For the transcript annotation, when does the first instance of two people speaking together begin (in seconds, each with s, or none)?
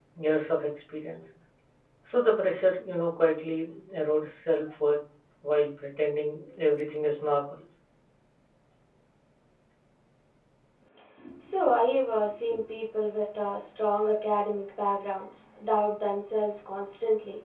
none